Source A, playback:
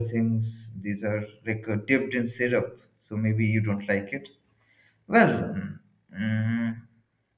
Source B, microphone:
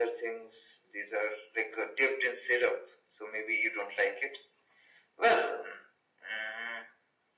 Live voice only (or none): none